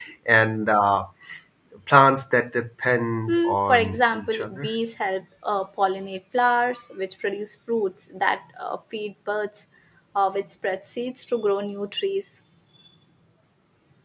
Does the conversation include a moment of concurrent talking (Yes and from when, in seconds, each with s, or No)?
Yes, from 3.3 s